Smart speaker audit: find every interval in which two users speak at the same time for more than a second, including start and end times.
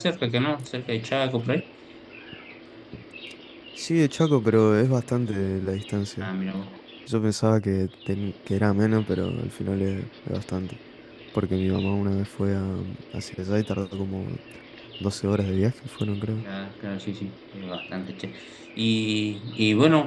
none

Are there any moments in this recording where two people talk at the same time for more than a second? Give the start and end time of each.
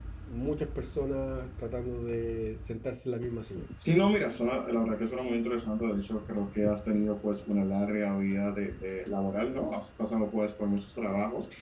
none

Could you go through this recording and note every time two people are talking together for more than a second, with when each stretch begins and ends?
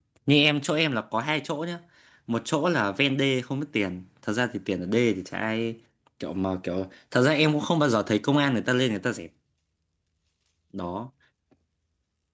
none

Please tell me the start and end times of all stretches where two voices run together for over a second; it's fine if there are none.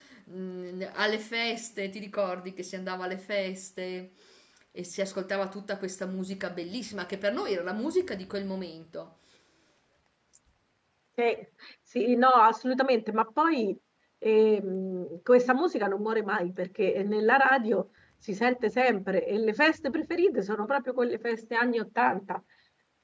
none

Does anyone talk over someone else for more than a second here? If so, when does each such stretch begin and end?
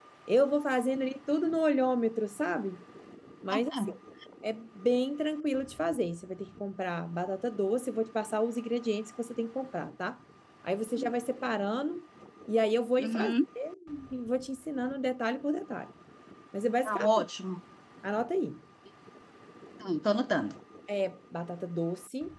none

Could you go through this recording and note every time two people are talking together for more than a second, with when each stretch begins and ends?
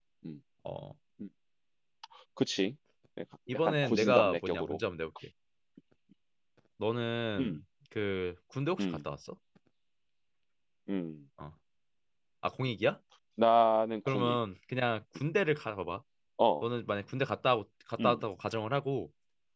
3.5-4.8

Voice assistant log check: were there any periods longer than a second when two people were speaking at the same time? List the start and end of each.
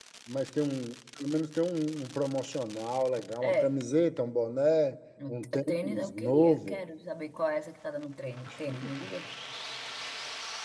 5.3-6.8

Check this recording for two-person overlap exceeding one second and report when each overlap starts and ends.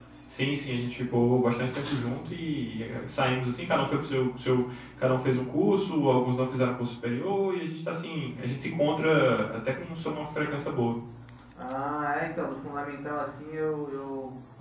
none

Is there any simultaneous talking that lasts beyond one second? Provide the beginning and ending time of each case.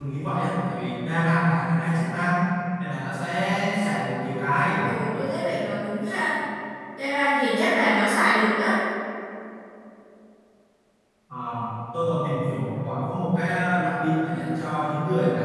none

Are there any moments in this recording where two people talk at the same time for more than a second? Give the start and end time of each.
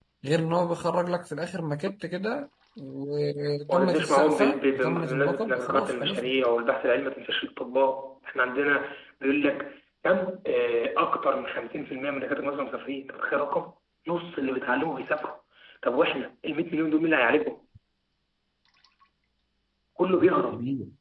3.7-6.3

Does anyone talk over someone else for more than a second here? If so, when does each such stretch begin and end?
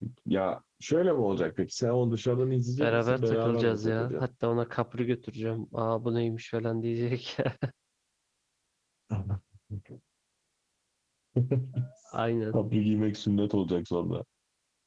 2.8-4.2

